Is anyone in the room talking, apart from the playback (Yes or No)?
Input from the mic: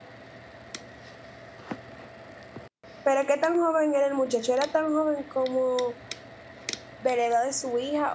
Yes